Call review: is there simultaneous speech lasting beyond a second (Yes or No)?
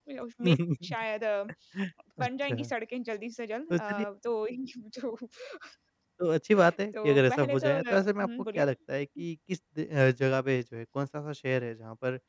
Yes